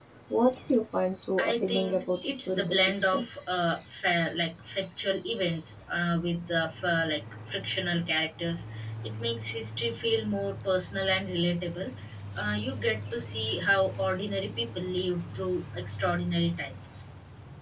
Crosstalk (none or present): present